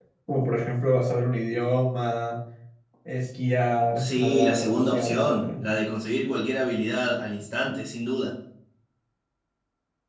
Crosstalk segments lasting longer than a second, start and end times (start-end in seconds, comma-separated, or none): 4.0-5.5